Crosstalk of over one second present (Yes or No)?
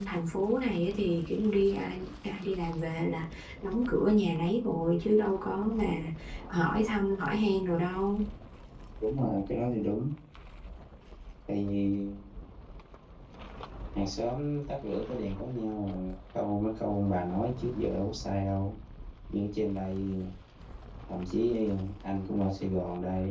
No